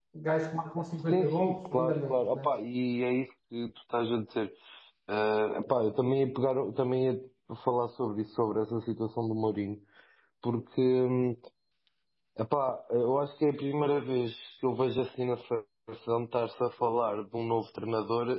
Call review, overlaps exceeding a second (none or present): present